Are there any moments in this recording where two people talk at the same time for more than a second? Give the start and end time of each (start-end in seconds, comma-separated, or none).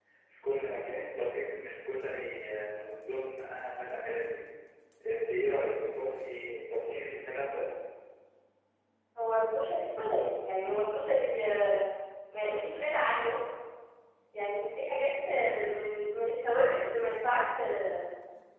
none